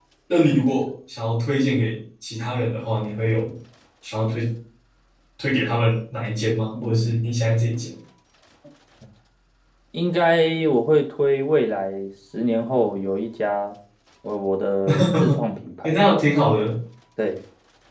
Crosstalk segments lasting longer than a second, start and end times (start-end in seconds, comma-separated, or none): none